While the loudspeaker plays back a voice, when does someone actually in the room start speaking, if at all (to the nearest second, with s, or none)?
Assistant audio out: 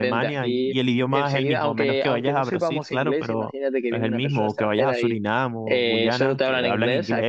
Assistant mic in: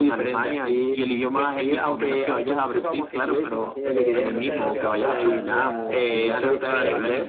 4 s